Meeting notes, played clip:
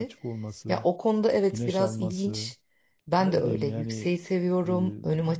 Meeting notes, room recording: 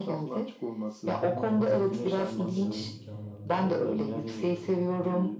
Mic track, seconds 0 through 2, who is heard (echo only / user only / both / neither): both